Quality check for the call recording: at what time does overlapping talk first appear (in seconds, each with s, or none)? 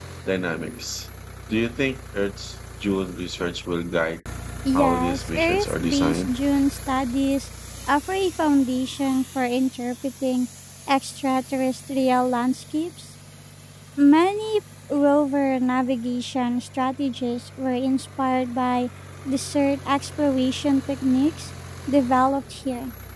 4.7 s